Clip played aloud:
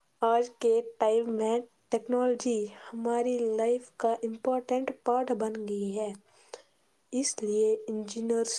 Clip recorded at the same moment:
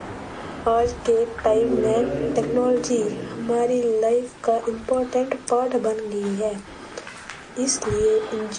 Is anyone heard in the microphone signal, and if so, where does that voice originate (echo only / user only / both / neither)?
both